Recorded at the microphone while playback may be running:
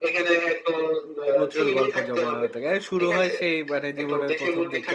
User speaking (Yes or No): Yes